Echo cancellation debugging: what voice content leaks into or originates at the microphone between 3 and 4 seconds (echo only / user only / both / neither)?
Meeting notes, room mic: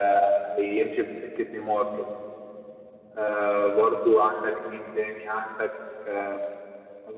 echo only